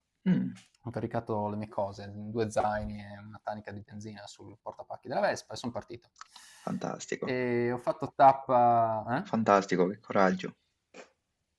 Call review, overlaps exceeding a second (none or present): none